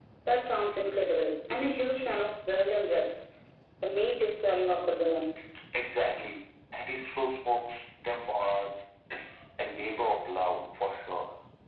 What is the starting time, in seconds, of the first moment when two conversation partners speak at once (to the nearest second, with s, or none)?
none